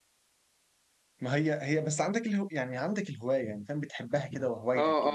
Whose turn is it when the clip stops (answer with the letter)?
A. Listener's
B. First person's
A